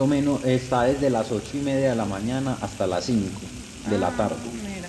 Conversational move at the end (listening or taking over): taking over